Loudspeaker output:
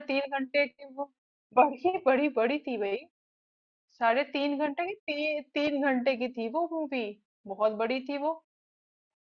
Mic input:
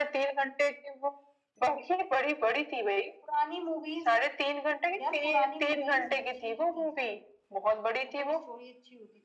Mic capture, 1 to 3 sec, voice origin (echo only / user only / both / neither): echo only